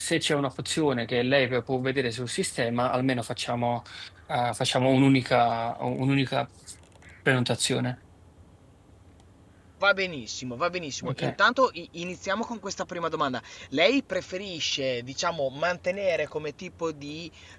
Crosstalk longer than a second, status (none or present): none